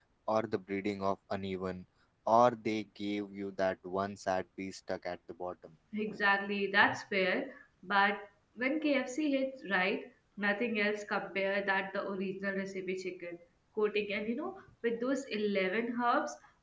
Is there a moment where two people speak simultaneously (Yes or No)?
No